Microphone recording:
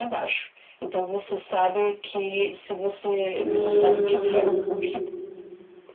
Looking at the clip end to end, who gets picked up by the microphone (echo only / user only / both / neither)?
both